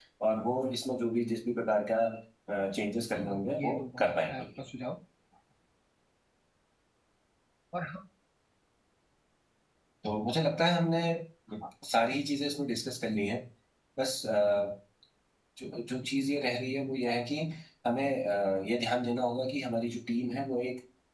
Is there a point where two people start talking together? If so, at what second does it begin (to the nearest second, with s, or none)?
3 s